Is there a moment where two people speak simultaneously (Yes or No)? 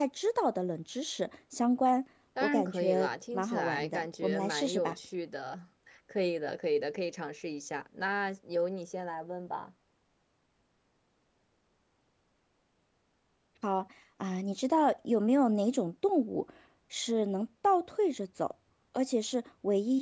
Yes